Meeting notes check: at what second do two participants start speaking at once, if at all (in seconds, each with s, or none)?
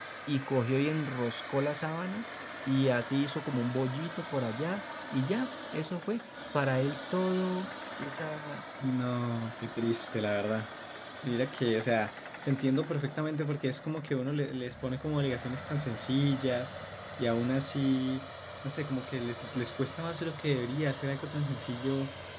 none